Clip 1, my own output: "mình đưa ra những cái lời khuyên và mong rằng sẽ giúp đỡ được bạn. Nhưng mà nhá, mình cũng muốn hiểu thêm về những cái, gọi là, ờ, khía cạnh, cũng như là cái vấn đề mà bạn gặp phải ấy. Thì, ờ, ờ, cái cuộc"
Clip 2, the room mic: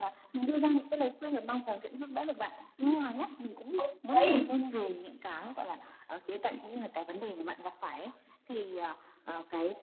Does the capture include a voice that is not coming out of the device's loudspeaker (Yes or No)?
Yes